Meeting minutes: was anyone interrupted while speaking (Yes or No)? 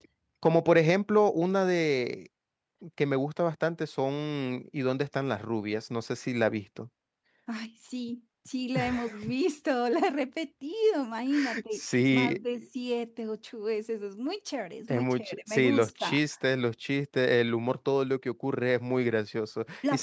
Yes